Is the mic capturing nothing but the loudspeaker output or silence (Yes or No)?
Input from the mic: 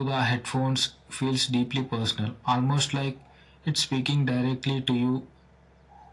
Yes